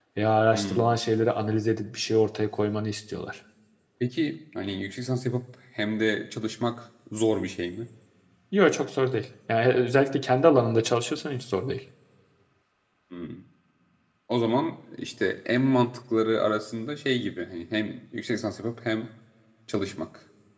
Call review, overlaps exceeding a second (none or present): none